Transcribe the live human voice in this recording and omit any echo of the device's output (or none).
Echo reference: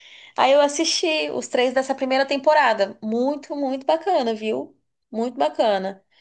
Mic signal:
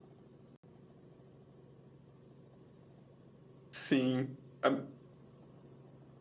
Sim. A-